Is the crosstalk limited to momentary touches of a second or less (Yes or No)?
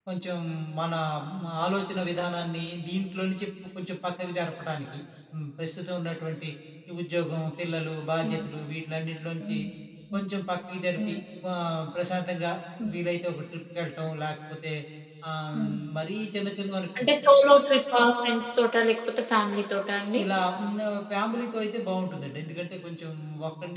Yes